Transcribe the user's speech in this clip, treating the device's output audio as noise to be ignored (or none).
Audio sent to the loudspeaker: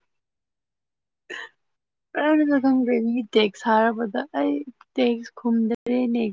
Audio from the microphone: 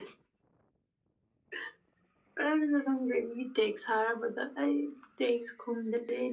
none